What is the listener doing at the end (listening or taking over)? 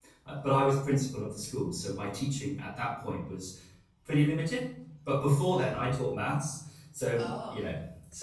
listening